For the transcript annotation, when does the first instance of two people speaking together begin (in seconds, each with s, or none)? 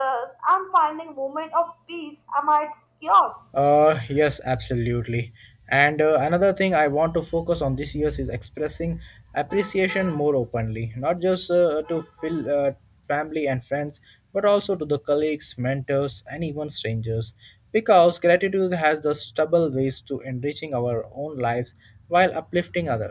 none